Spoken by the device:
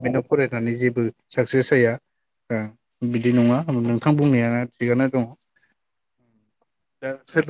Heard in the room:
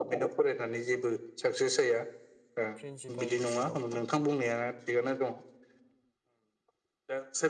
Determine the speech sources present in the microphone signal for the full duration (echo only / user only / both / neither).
both